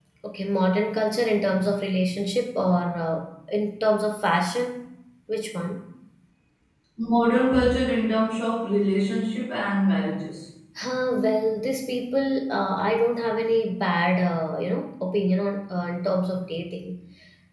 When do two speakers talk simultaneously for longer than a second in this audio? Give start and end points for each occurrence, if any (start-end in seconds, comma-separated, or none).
none